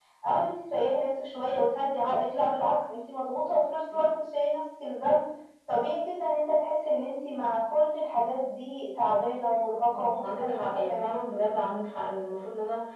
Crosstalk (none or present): present